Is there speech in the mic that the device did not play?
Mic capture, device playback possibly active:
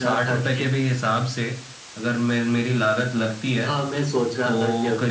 No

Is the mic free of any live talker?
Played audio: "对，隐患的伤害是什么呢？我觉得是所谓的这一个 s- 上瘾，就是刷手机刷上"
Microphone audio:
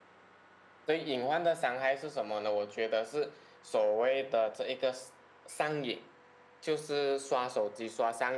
Yes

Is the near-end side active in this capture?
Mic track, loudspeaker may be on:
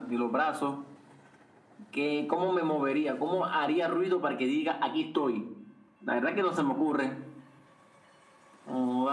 No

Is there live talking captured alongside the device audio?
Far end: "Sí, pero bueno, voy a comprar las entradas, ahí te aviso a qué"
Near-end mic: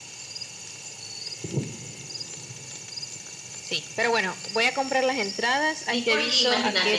Yes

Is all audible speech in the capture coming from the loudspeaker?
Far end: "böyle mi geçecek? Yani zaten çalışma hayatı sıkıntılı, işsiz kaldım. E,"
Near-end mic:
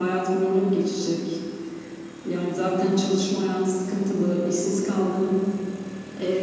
Yes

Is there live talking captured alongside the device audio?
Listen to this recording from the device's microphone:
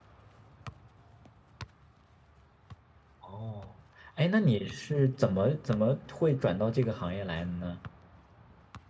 Yes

